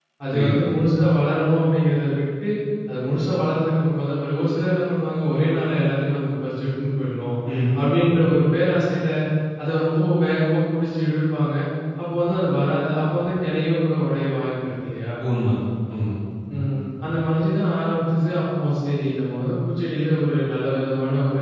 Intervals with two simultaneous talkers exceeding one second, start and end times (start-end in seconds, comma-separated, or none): none